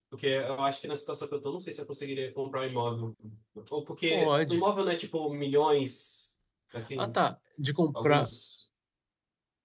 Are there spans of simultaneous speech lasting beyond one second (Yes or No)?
No